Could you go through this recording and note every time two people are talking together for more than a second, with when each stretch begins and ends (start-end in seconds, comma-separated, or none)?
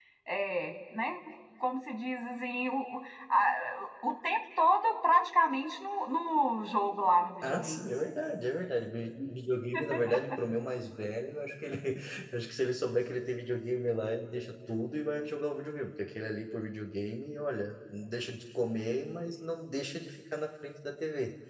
none